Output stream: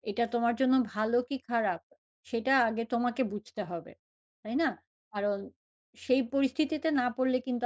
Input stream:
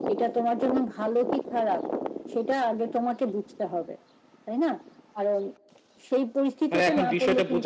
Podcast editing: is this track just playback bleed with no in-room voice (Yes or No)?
No